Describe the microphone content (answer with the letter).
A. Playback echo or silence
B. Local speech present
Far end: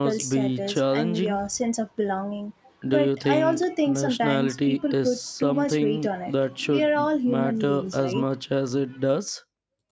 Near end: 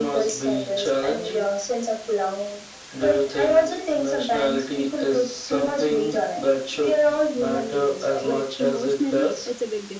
B